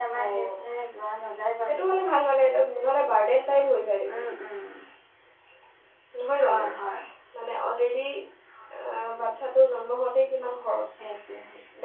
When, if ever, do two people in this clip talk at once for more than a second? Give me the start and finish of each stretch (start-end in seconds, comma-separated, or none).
none